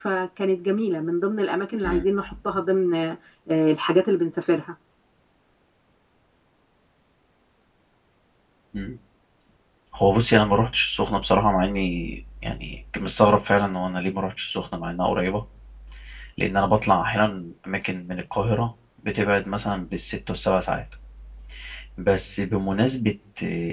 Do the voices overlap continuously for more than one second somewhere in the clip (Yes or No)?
No